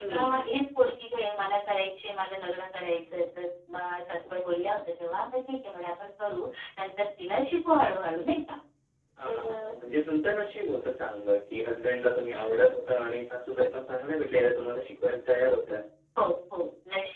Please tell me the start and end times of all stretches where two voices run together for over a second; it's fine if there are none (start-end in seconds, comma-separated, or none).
none